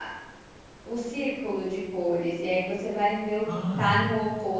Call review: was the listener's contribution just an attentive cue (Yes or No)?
Yes